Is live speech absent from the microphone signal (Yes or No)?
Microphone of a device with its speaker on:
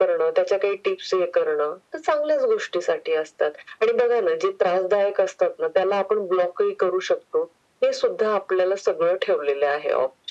Yes